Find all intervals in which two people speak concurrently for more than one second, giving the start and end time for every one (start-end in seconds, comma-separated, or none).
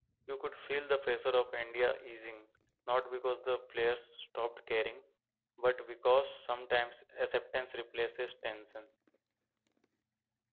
none